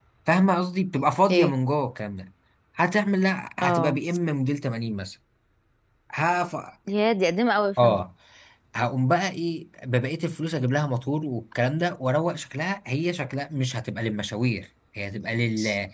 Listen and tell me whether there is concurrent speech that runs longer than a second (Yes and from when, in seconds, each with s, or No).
No